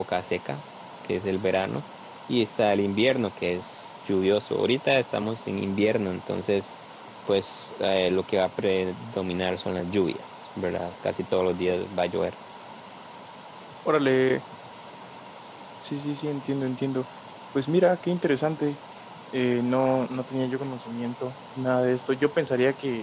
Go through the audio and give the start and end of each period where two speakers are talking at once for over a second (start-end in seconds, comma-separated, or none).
none